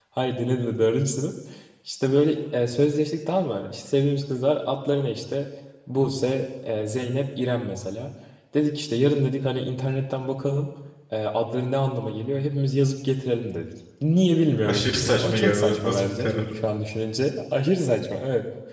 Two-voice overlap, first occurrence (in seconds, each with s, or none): 14.7 s